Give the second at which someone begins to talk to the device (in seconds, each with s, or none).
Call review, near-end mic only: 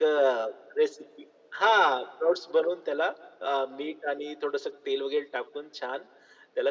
none